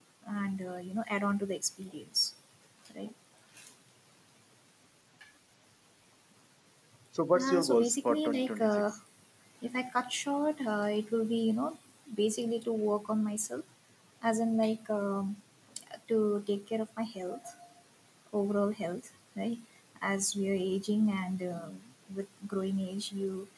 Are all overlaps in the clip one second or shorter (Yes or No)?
No